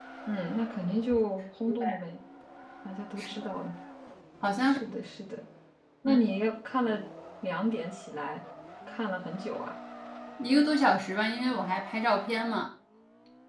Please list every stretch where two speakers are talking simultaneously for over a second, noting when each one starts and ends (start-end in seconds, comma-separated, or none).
none